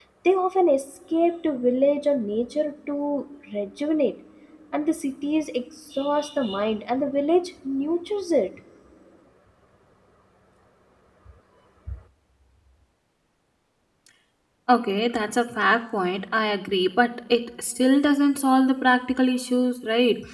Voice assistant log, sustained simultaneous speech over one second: none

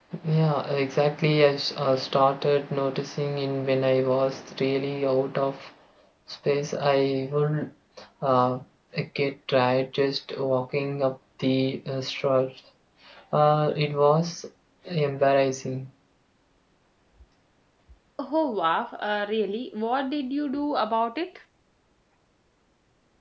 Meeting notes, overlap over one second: none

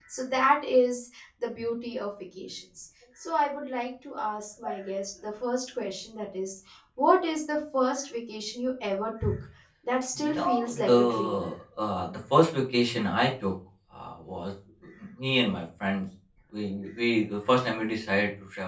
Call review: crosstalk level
present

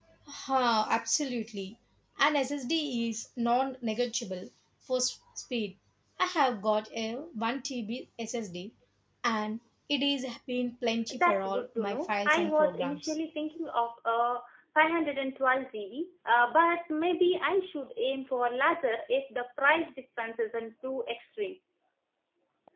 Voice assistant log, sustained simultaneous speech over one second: present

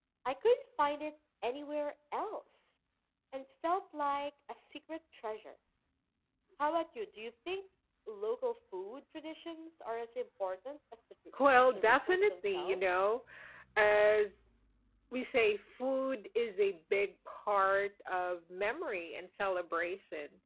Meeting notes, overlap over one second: present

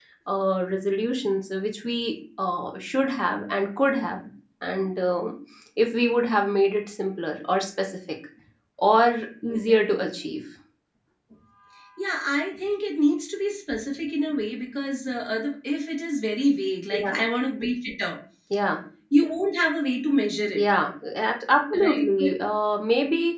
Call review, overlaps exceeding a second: none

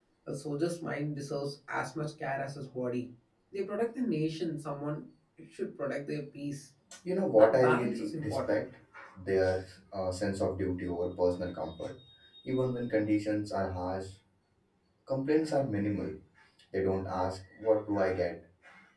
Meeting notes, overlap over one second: present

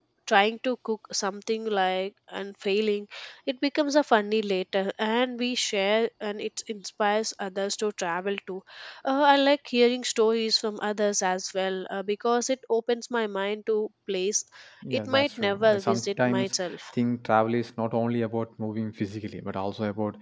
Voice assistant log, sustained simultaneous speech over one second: present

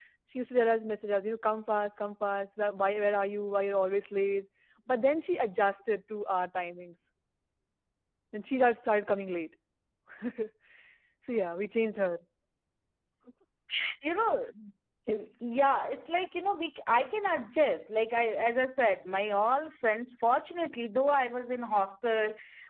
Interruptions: none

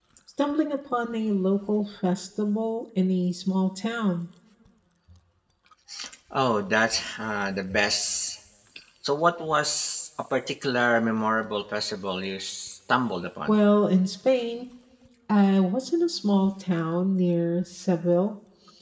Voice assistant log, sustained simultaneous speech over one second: none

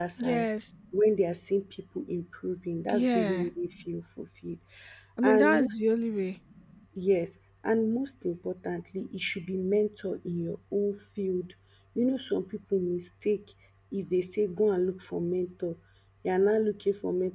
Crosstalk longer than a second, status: none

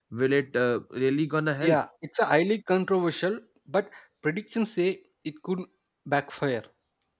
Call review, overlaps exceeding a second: none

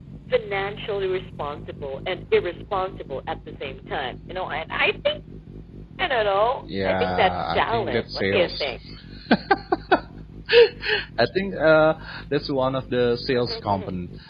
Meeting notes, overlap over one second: present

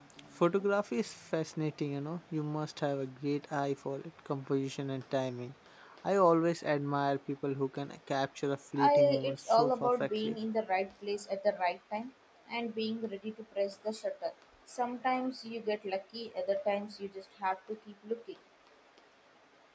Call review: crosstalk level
present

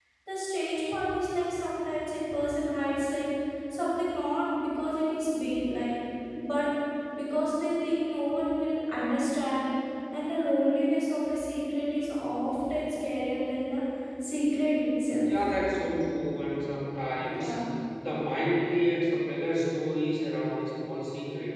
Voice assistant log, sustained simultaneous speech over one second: none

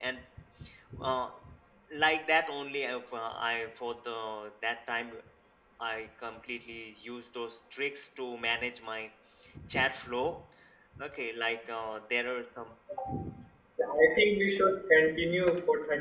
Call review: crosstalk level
none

